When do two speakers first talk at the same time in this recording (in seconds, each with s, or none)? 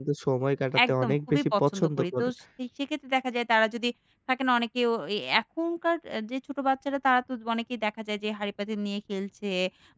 0.9 s